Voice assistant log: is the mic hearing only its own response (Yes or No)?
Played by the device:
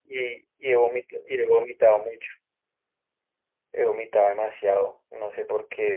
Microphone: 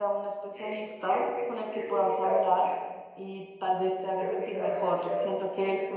No